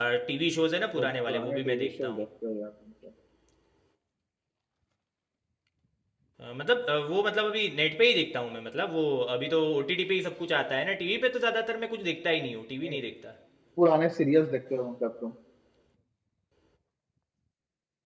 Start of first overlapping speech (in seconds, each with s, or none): 0.9 s